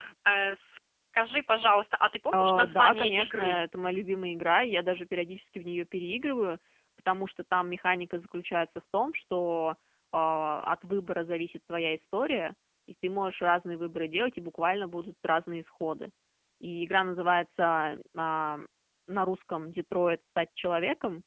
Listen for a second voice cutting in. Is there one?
Yes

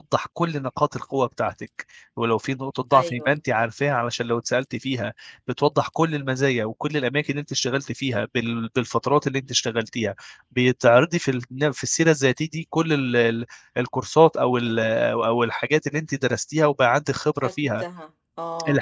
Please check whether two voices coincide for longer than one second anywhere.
No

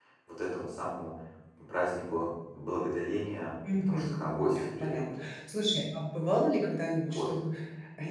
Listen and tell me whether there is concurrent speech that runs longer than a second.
Yes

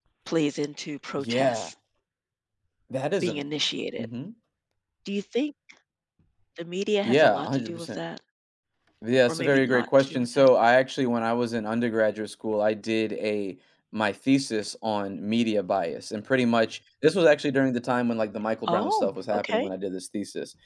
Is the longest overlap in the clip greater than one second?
Yes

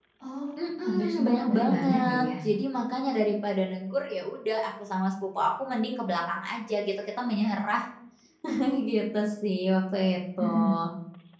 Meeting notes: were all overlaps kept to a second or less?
No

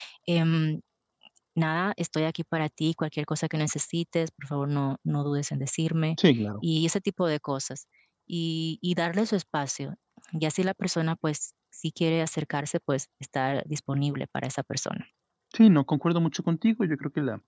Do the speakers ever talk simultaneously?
No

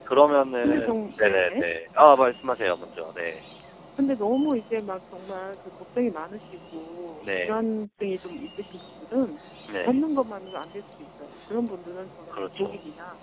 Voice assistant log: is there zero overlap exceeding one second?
Yes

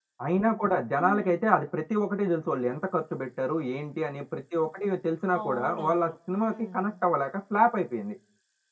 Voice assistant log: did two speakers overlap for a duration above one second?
Yes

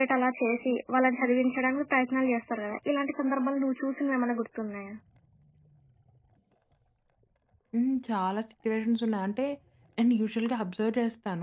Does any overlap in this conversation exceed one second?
No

